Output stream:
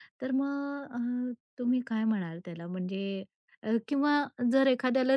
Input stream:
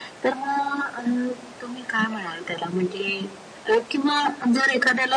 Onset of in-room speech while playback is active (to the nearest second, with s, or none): none